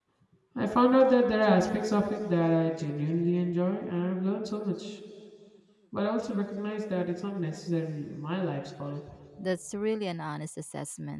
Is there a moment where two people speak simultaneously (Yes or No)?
No